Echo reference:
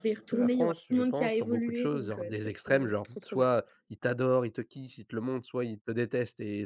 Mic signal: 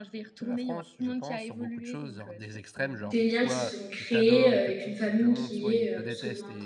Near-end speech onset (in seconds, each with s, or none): 3.0 s